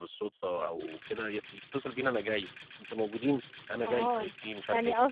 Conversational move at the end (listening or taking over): taking over